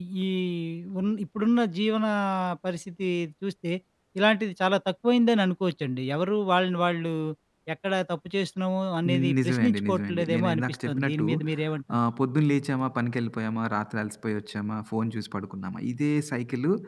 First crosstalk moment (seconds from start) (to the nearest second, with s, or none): 9 s